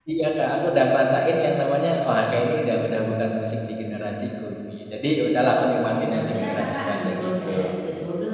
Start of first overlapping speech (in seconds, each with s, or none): 5.5 s